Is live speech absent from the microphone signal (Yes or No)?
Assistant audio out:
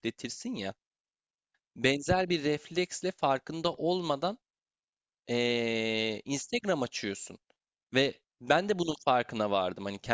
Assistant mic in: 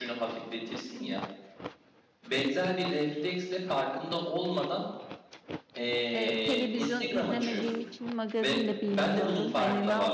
No